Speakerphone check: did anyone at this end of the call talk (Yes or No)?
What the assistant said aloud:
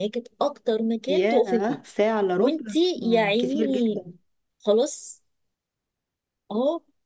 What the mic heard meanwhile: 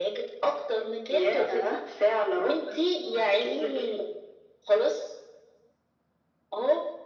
No